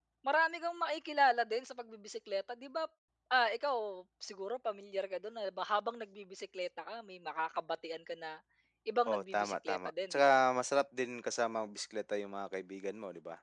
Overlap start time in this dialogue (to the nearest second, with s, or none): 9 s